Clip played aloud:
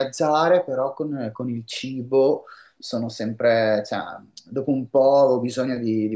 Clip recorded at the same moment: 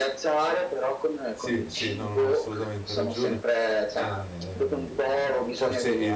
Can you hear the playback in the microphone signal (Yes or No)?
Yes